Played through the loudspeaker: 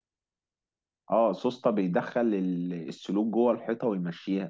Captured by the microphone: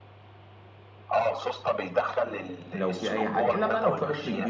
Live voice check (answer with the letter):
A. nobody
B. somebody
B